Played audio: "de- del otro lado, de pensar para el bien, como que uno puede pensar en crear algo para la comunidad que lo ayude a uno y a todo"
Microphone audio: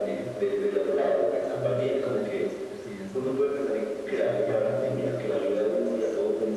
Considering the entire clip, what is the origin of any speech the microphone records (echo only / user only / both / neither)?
both